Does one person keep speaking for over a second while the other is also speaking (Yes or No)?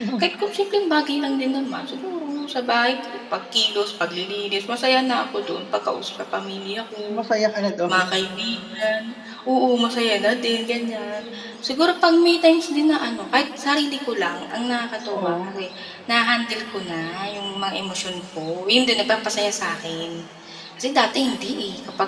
No